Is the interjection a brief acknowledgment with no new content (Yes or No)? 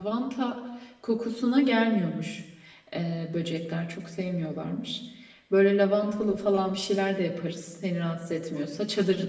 Yes